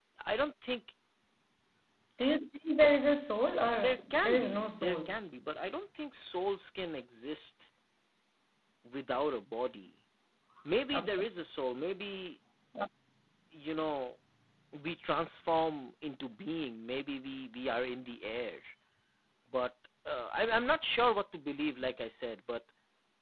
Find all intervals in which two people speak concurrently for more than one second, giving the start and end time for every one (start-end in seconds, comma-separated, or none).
3.7-5.2